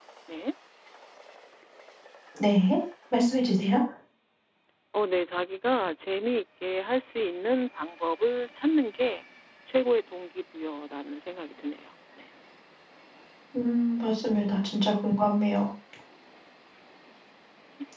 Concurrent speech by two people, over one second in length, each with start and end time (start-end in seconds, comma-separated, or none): none